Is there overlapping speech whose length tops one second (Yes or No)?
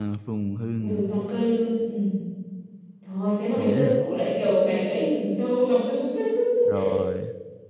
No